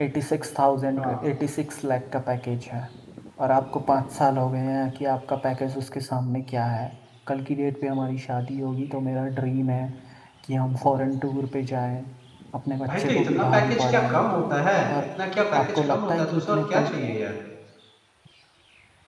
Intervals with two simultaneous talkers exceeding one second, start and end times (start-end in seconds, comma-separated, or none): 12.8-14.3, 15.6-16.9